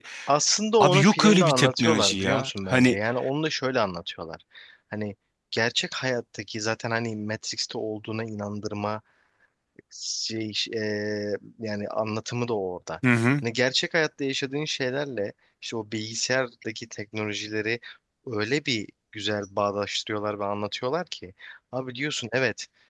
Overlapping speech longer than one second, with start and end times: 0.8-3.0

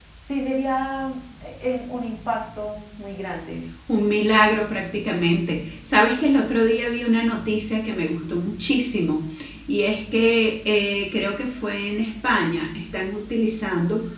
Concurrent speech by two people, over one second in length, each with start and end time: none

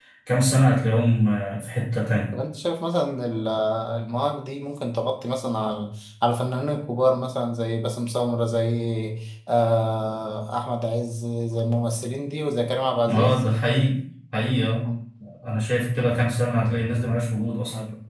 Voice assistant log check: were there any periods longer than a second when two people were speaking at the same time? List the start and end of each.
none

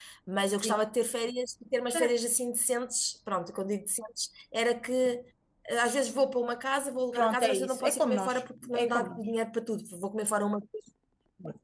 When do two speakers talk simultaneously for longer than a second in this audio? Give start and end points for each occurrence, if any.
7.2-9.2

